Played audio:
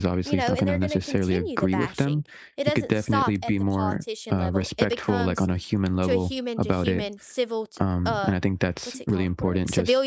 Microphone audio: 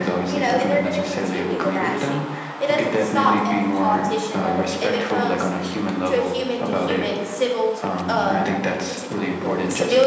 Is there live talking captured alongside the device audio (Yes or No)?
No